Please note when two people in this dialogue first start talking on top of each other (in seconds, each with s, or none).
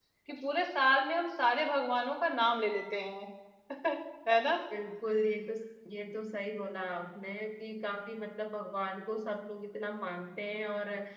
none